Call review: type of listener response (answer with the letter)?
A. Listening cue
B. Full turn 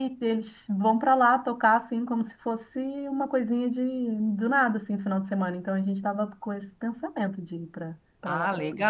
B